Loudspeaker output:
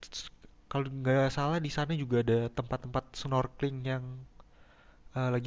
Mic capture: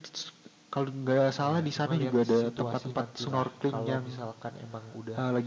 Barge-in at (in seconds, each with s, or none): 1.4 s